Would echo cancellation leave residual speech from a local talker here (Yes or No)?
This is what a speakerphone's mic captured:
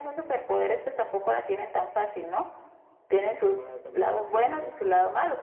Yes